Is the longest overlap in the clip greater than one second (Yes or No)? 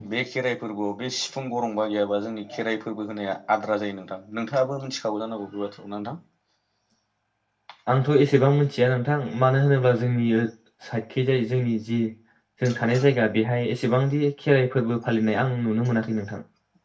No